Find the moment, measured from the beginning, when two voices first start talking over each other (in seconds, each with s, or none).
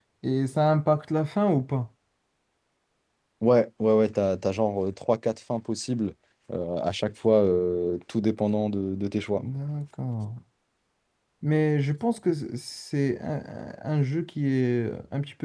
none